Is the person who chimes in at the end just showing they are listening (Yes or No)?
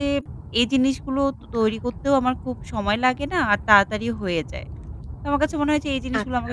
Yes